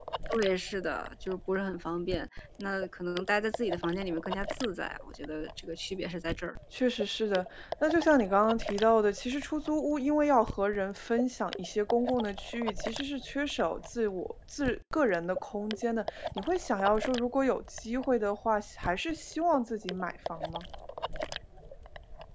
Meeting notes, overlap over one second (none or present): none